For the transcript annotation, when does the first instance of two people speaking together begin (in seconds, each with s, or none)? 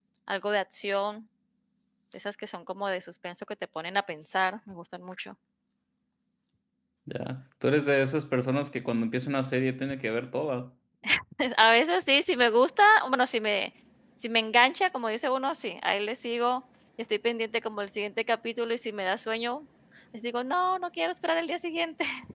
none